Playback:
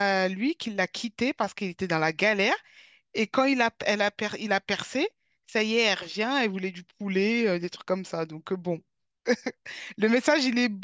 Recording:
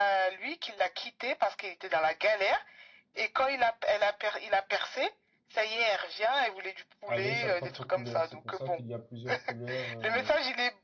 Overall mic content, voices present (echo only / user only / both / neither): both